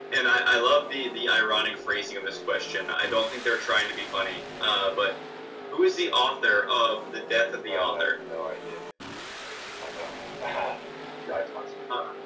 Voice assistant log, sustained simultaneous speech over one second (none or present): none